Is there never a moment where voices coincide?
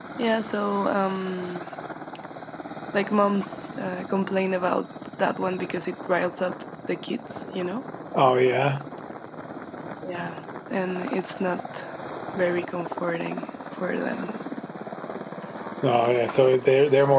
Yes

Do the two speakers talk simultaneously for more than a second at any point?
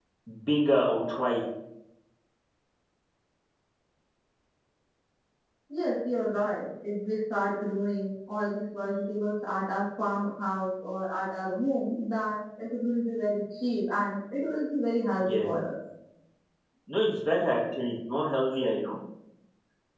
No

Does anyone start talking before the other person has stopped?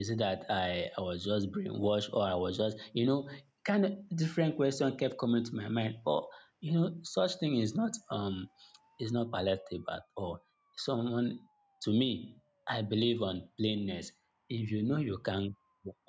No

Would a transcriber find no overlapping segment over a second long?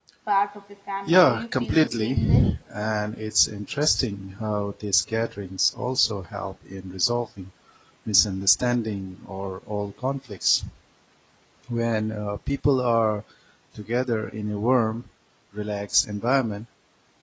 No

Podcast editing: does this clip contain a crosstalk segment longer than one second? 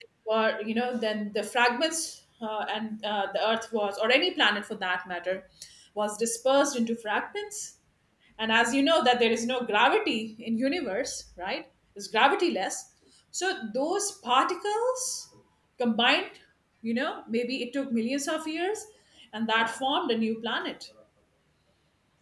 No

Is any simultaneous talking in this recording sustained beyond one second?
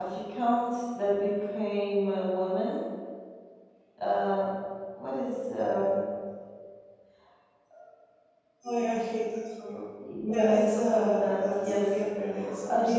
Yes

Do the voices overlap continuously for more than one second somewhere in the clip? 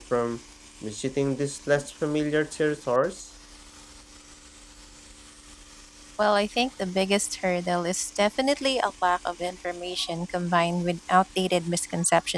No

